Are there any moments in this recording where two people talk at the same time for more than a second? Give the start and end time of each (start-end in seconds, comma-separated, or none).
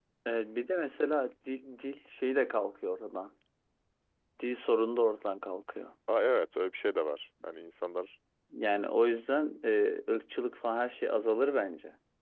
none